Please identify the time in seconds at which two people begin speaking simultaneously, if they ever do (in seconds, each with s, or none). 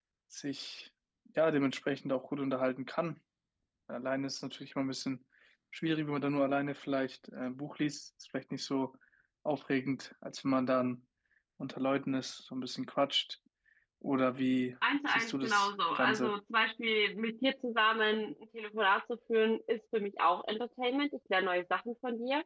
15.1 s